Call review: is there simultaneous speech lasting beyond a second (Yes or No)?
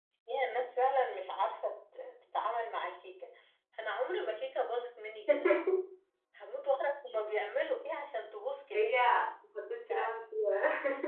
No